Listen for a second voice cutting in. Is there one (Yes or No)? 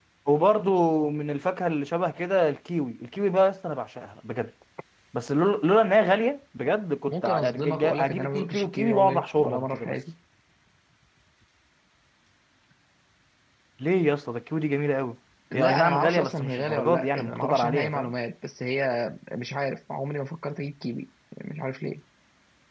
Yes